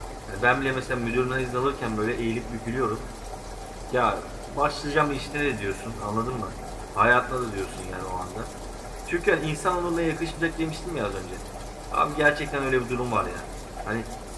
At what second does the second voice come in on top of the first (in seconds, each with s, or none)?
none